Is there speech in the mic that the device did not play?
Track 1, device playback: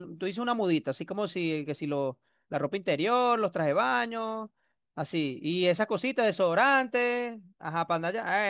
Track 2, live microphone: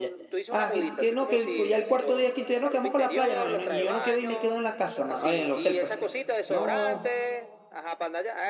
Yes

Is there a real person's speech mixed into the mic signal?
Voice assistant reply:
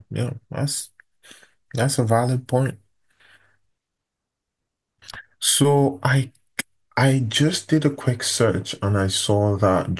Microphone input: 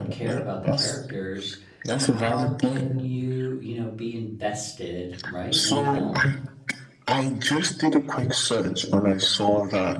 Yes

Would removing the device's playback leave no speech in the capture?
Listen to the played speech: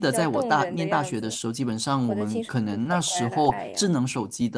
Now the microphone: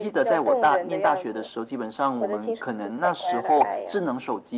Yes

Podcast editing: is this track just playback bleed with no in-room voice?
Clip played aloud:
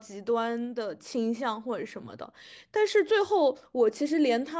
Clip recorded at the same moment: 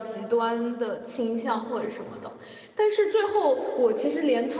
Yes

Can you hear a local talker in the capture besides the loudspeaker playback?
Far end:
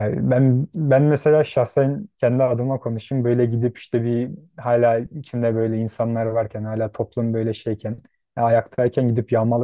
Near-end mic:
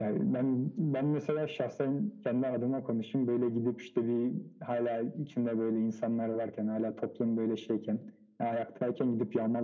No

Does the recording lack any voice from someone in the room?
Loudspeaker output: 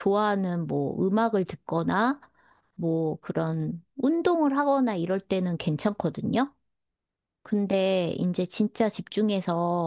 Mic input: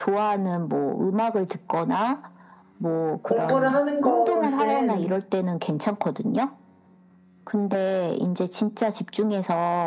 No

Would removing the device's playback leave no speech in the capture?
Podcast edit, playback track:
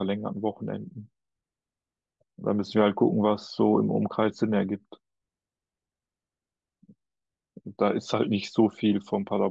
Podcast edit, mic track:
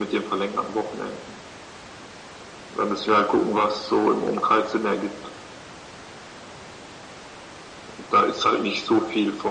Yes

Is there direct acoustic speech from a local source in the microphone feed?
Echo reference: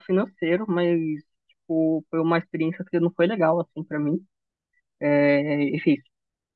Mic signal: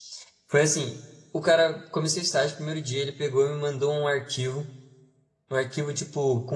Yes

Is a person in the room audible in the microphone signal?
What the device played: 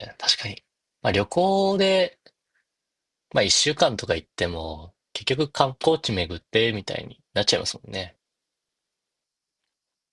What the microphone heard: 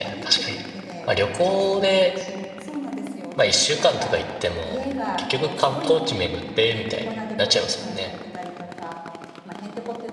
Yes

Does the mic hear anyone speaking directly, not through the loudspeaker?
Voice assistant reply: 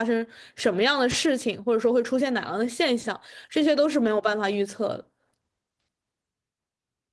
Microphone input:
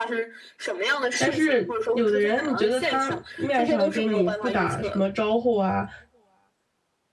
Yes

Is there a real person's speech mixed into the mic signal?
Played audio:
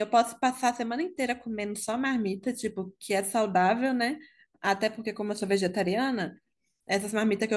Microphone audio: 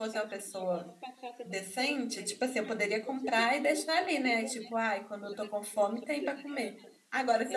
Yes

